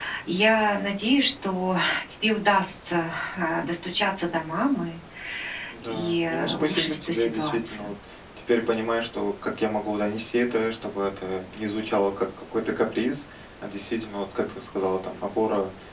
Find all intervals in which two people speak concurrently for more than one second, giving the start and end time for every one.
5.8-7.9

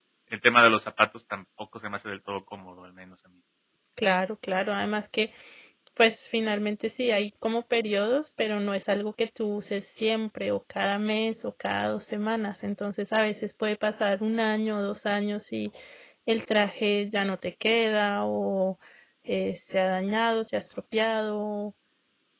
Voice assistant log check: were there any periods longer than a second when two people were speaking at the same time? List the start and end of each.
none

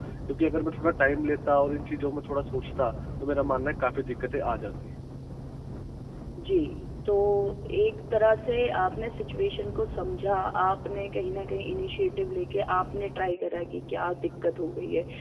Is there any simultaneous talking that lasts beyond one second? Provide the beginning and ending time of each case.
none

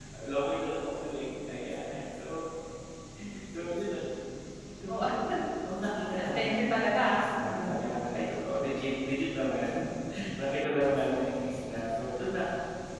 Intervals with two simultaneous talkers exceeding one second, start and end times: 6.2-7.8

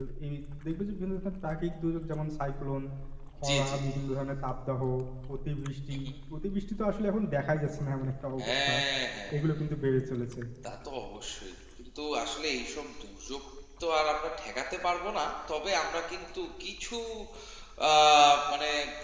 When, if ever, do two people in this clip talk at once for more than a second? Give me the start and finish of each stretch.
none

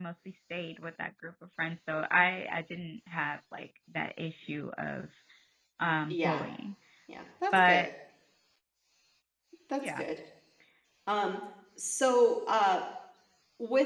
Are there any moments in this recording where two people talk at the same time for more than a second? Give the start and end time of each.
none

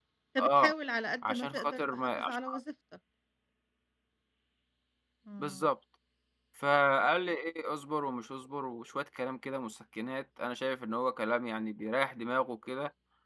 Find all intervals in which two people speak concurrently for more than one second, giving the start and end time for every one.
1.2-2.6

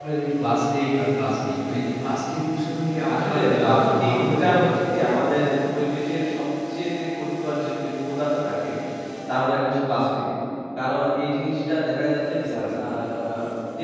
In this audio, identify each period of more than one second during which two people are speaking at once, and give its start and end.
3.2-4.5

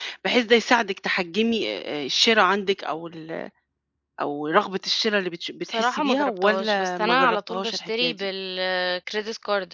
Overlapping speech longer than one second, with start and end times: 5.6-8.3

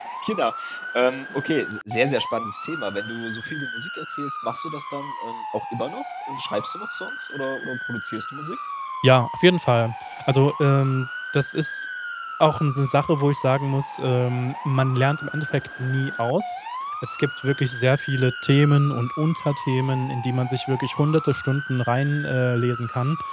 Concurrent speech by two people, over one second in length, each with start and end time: none

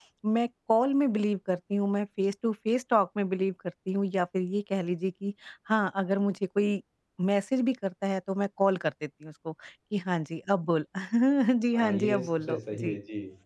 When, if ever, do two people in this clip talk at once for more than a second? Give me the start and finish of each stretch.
11.8-13.0

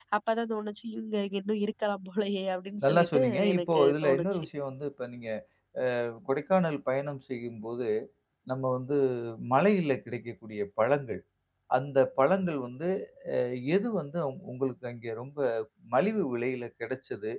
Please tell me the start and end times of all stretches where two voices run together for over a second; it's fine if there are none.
2.8-4.3

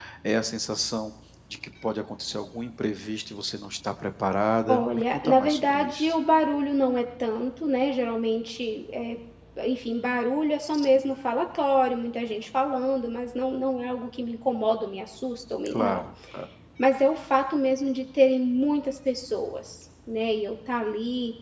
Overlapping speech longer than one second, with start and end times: 4.7-6.1

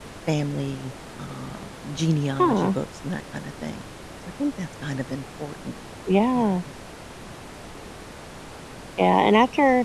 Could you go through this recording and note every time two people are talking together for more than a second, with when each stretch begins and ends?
none

